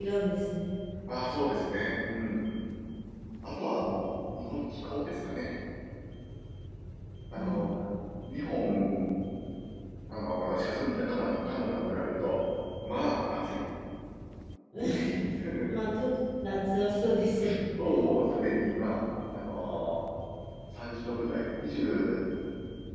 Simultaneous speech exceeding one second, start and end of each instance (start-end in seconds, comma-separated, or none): none